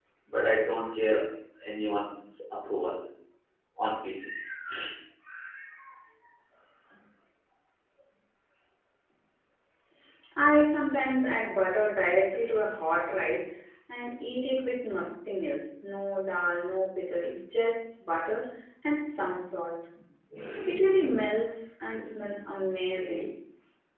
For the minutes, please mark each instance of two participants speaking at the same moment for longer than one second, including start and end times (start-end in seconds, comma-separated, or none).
none